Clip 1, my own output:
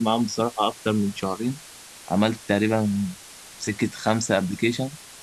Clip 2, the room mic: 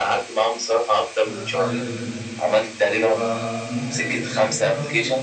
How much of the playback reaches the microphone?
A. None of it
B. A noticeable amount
B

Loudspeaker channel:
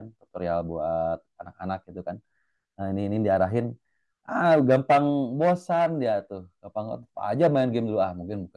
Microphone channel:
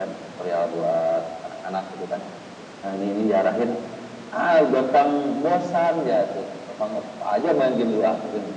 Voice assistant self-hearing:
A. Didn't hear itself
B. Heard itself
B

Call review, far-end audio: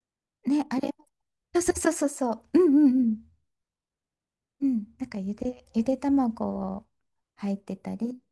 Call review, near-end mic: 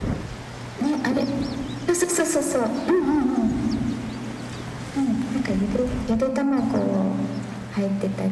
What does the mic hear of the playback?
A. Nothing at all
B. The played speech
B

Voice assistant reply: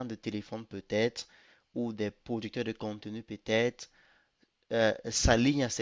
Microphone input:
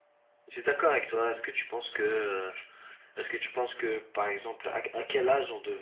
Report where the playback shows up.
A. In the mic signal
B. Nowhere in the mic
B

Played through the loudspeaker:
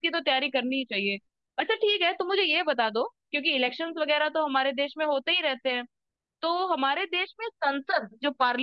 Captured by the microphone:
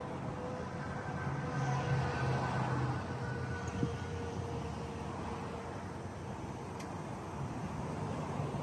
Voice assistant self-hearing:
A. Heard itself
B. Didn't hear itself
B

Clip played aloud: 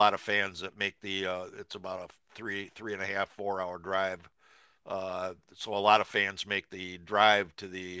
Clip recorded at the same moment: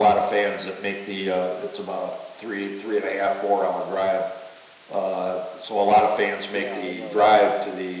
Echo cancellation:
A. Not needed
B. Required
B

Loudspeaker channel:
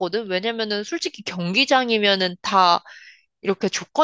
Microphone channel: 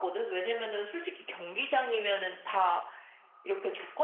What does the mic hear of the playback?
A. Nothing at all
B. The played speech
B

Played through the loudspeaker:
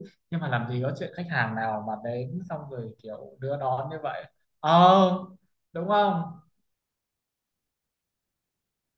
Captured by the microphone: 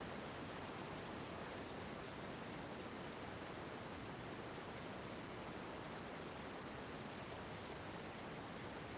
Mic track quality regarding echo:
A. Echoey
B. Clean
B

